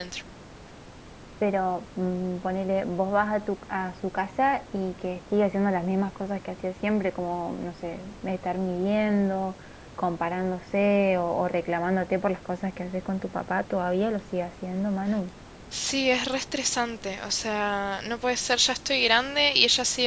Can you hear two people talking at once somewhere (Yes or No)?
No